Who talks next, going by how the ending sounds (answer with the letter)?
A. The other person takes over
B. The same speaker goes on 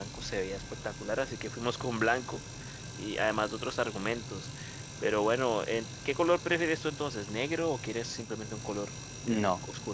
A